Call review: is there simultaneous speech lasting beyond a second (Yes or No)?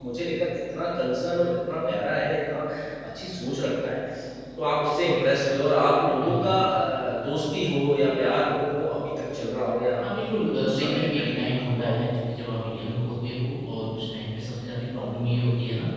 Yes